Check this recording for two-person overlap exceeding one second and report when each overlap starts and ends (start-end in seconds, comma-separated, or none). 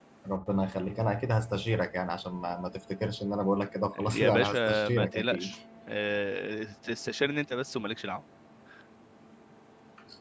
4.0-5.6